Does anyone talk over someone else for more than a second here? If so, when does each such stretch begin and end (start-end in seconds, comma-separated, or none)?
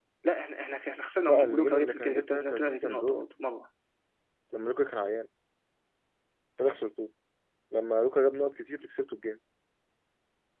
1.3-3.2